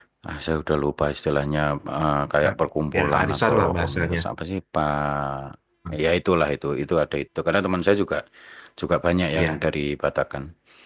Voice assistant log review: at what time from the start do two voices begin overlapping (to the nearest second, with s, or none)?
3 s